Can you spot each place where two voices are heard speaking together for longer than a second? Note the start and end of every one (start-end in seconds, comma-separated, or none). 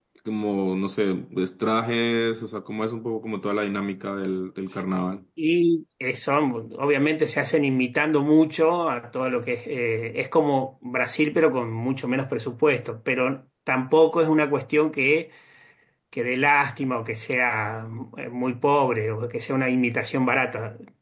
none